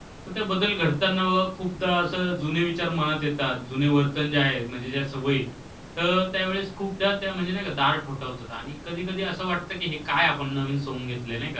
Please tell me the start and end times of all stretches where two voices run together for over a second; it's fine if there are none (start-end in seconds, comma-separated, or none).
none